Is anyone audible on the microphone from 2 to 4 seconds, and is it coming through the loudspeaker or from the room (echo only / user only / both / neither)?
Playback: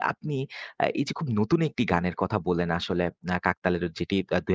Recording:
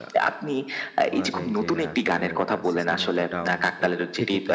both